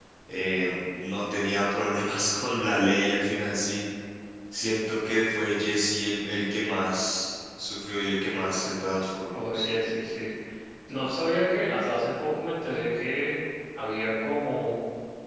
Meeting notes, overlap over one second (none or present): none